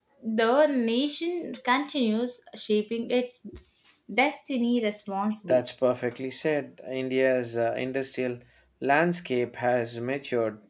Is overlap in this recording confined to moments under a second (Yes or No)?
Yes